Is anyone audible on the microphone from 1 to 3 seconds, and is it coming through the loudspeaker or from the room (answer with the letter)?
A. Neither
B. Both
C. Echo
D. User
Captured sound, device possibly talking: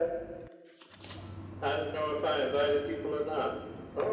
C